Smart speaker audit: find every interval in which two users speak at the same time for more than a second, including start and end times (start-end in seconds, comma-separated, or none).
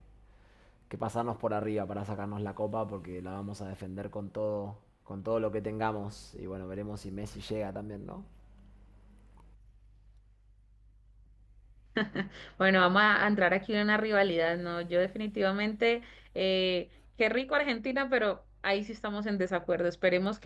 none